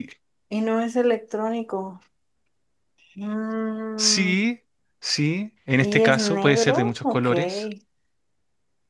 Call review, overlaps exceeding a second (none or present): present